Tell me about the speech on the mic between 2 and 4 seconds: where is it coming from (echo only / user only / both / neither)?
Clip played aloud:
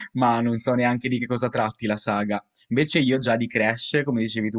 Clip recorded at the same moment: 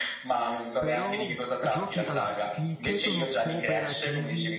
both